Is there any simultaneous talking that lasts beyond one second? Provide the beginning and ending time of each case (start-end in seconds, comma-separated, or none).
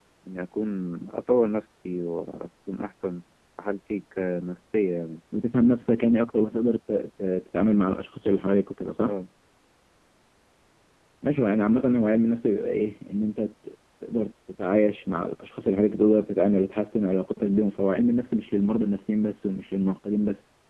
none